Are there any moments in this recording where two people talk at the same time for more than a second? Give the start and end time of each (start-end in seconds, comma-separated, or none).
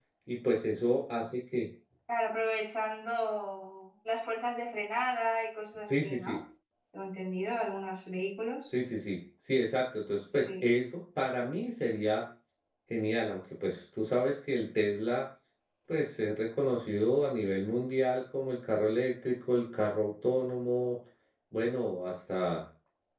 none